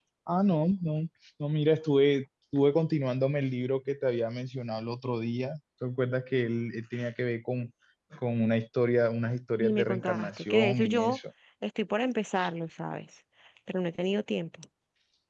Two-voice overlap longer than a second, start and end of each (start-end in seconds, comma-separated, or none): 9.6-11.2